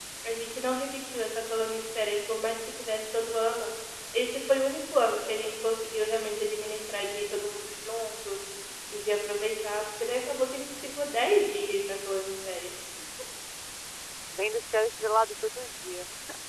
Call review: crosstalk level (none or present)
none